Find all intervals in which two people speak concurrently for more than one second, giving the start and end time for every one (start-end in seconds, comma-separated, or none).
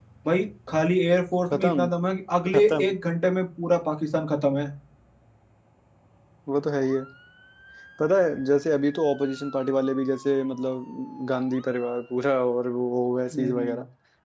none